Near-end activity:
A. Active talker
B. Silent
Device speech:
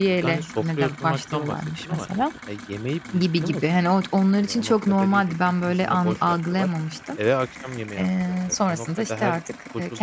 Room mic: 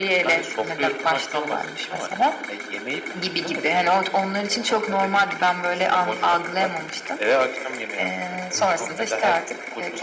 A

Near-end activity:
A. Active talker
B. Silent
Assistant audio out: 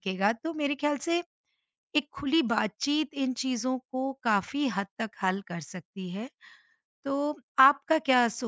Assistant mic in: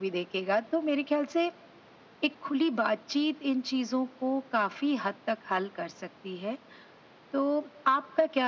B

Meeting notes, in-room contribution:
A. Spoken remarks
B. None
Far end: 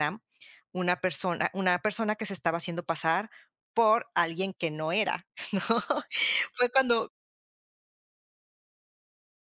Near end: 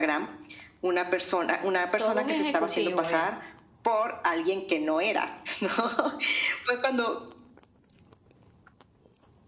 A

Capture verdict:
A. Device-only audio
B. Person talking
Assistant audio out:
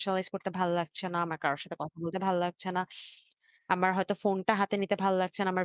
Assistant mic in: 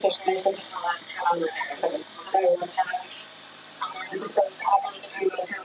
A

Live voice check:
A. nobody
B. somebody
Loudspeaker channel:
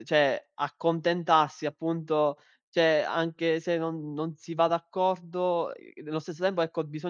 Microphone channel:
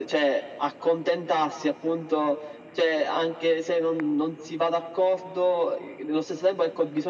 A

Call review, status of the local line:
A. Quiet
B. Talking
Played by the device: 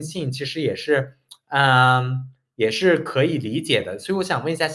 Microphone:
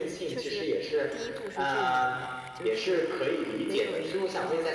B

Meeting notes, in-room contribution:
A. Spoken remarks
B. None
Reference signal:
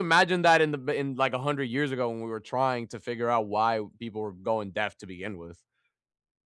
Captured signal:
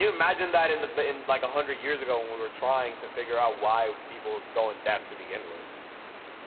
B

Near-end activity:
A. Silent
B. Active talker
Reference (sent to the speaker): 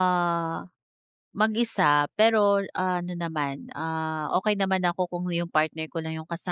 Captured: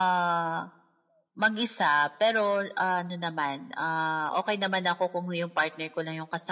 A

